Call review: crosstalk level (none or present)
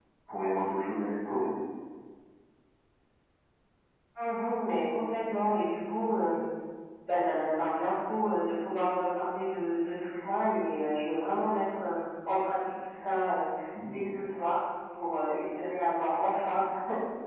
none